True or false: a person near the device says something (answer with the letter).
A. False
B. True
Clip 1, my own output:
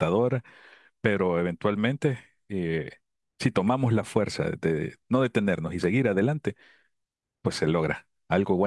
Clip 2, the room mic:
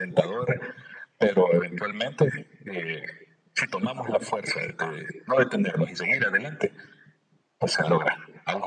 A